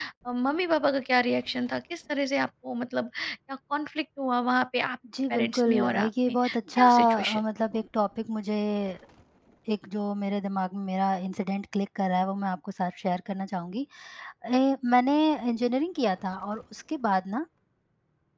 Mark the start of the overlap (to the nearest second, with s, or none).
5 s